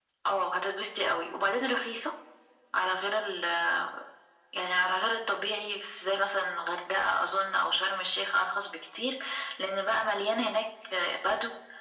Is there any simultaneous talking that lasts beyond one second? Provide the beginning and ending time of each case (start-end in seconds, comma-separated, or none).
none